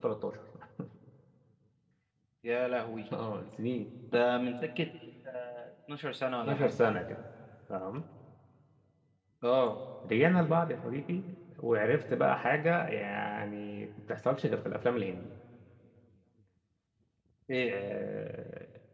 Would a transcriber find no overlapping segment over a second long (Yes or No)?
Yes